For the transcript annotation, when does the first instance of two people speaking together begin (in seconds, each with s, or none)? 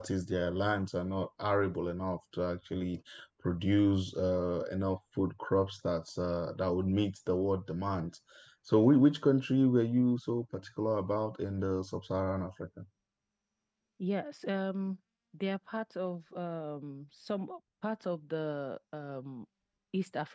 none